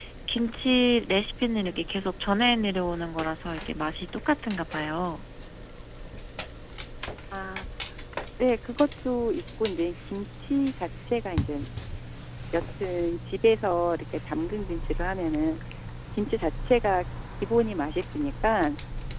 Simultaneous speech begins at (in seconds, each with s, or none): none